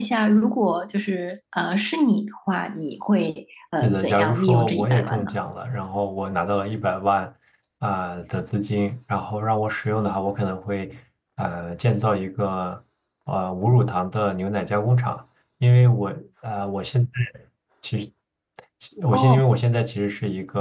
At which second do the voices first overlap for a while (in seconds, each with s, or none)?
3.8 s